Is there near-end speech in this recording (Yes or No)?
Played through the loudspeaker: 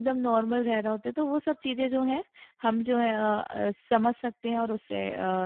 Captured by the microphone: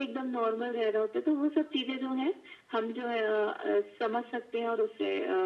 No